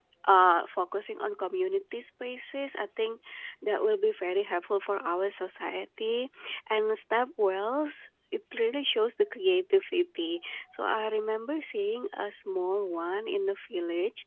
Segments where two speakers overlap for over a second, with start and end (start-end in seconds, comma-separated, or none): none